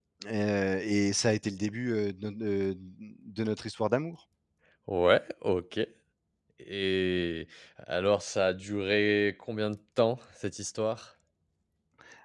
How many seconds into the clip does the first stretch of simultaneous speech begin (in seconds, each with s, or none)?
none